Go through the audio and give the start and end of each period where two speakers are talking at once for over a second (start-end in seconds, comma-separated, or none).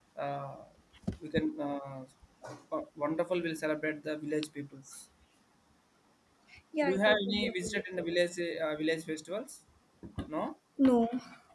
6.8-8.0